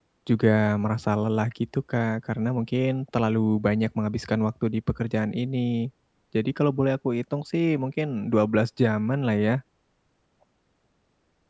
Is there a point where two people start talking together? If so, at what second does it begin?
none

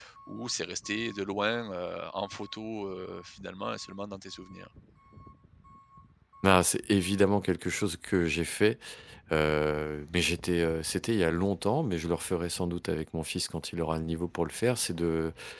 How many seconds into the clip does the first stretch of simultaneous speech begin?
none

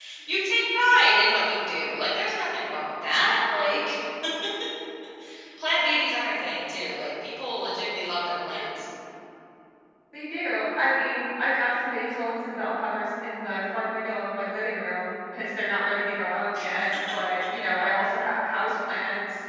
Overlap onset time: none

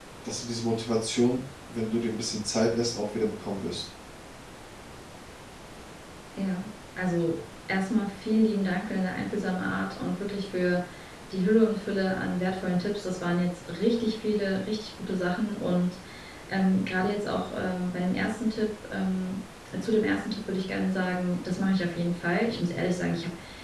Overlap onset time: none

